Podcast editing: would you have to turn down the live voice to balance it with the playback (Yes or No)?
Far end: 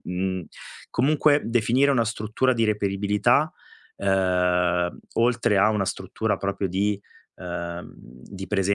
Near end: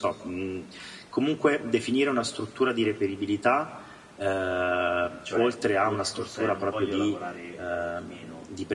No